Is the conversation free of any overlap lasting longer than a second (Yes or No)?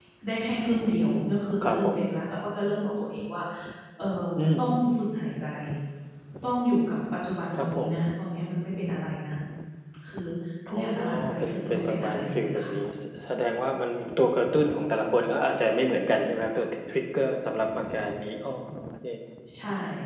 No